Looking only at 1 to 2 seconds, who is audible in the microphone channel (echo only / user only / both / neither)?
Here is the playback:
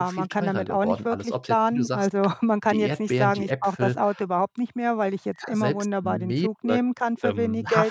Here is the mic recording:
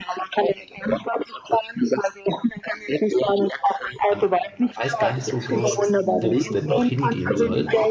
echo only